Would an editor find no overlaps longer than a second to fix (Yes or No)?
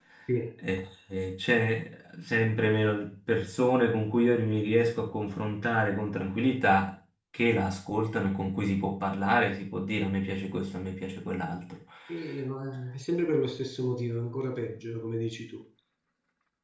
Yes